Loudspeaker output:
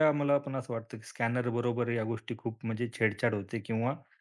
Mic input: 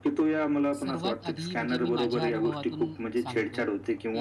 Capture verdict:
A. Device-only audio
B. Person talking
B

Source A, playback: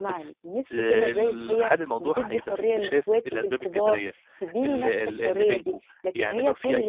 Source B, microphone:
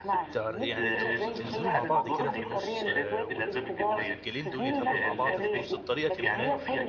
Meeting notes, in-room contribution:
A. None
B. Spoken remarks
B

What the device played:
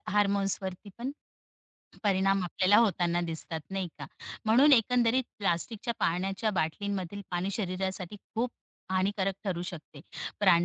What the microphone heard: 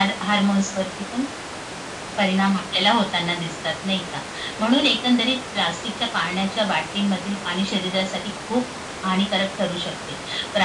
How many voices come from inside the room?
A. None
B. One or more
A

